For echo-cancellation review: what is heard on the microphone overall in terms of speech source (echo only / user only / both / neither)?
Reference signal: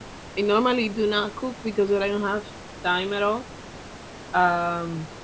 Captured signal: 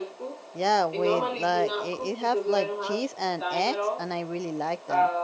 both